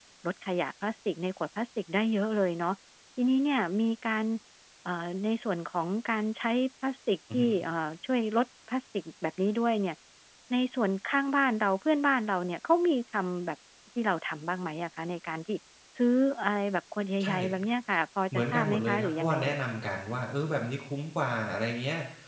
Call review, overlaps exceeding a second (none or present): present